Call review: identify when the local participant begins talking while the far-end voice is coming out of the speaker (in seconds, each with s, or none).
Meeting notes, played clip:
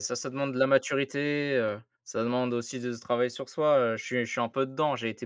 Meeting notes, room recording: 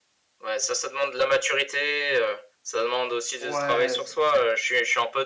3.4 s